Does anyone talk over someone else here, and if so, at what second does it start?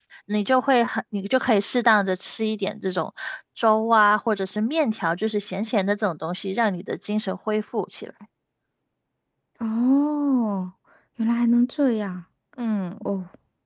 none

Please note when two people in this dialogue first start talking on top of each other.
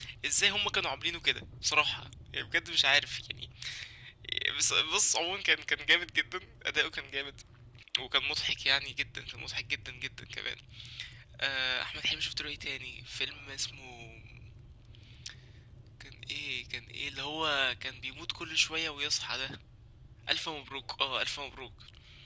none

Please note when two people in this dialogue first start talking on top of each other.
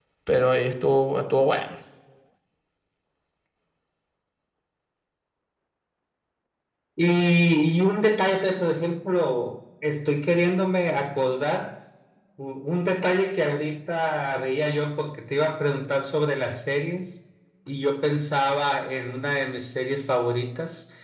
none

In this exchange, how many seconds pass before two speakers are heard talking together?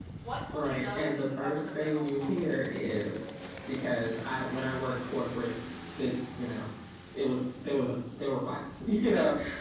0.5 s

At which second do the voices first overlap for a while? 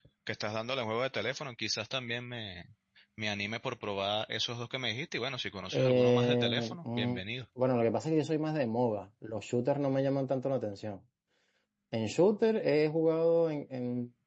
5.7 s

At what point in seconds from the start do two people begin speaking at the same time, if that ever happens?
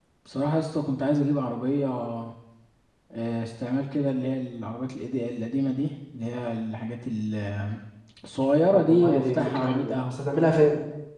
8.7 s

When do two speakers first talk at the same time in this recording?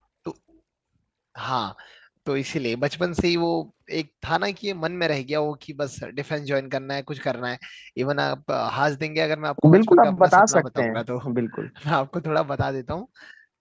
9.6 s

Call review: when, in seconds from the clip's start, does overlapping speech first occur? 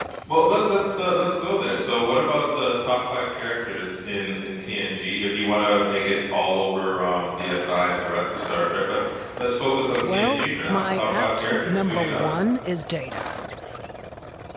10.0 s

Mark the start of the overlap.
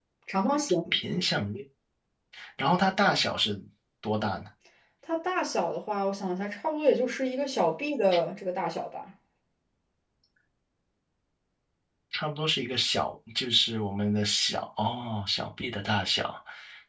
none

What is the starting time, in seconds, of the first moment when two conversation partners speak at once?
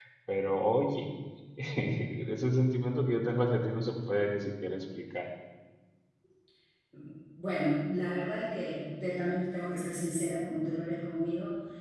none

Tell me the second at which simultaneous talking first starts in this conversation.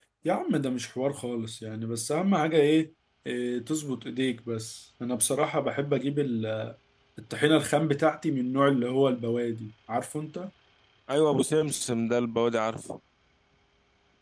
none

